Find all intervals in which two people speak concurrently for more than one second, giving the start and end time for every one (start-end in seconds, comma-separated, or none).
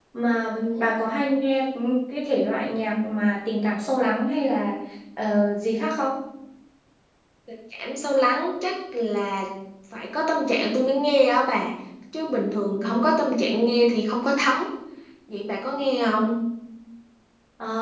none